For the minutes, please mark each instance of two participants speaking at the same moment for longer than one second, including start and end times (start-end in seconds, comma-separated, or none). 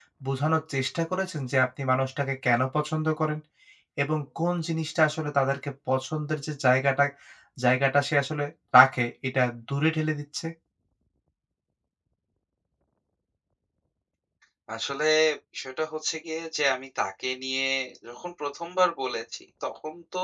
none